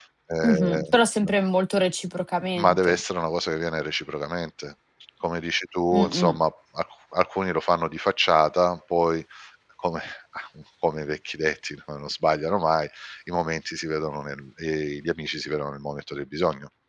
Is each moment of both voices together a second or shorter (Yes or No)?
Yes